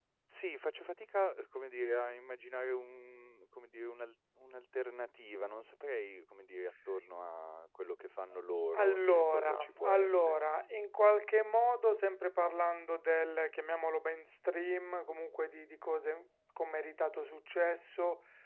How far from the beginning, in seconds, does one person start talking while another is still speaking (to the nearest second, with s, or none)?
9 s